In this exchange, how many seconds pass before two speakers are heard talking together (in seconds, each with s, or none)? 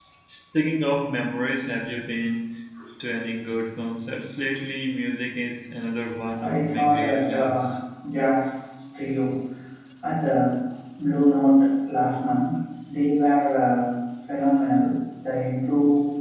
6.4 s